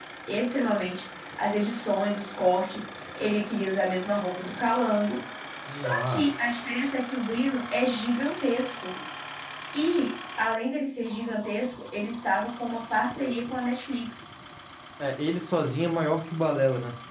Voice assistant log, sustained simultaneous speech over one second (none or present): present